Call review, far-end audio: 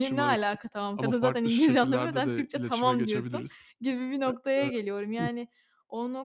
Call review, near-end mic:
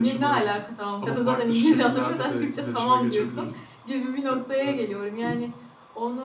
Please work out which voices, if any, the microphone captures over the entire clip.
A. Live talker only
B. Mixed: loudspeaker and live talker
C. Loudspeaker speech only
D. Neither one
C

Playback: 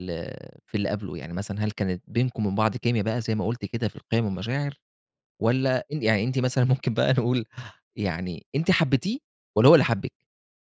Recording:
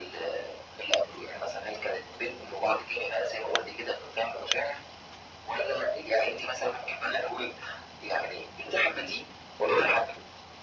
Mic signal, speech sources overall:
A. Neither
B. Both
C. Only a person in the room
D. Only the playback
D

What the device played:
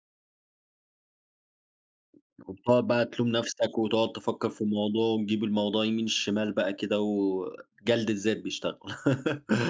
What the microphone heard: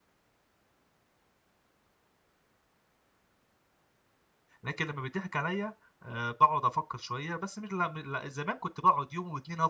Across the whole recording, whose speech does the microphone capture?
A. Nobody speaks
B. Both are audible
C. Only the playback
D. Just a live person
D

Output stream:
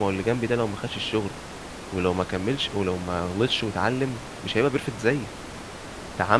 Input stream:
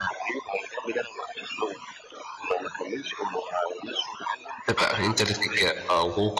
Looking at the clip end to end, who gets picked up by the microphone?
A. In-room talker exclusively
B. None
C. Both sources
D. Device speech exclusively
C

